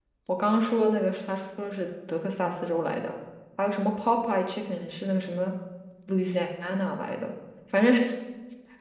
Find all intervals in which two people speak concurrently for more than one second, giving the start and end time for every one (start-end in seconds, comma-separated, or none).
none